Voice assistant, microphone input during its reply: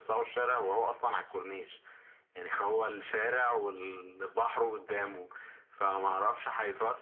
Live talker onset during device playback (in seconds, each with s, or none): none